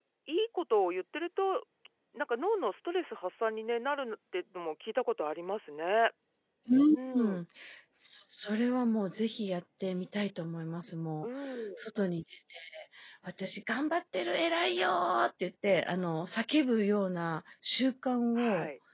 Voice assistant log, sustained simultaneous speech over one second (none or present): none